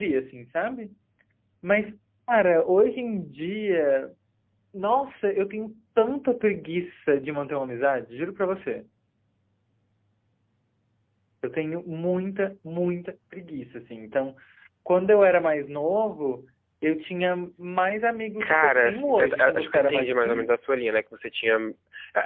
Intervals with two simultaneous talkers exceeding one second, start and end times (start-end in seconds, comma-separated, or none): 18.5-20.5